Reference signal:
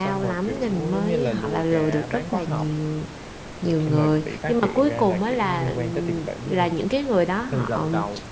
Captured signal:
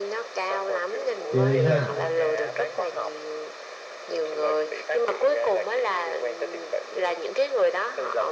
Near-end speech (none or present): present